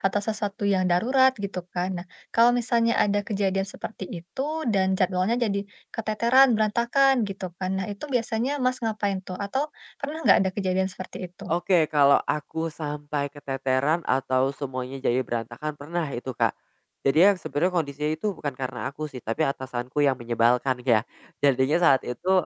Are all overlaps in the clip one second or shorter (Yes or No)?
Yes